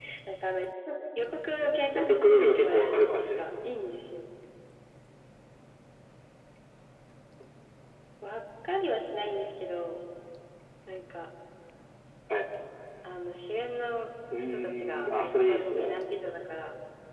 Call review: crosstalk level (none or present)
present